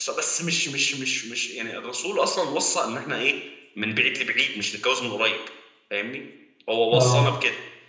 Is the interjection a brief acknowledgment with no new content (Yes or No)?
Yes